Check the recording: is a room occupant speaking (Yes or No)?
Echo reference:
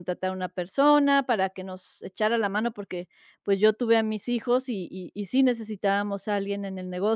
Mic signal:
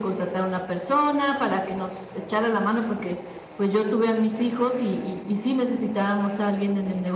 No